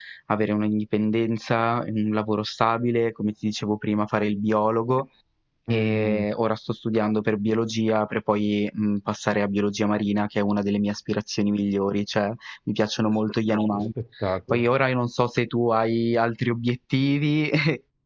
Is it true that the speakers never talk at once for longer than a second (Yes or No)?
Yes